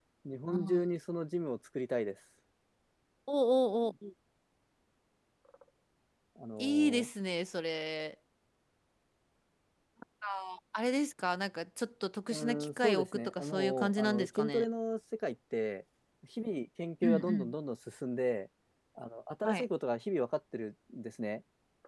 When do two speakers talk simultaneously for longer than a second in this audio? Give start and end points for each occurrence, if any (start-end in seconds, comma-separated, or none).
12.3-14.6